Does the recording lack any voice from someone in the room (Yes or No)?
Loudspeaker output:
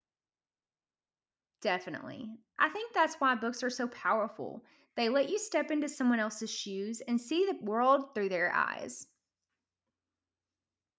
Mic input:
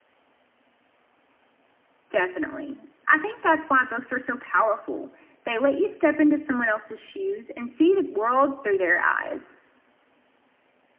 Yes